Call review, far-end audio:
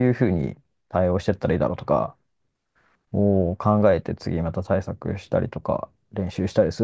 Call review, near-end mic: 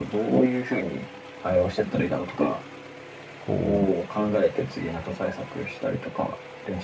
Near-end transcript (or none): こ